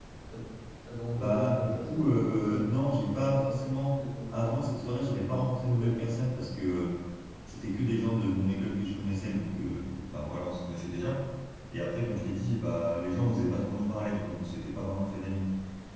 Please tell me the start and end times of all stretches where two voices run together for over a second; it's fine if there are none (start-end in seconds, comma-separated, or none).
1.1-2.7